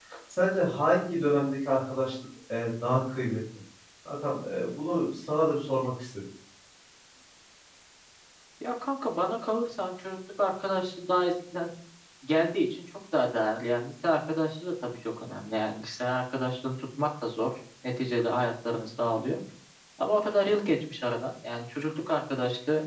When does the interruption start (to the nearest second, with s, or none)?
none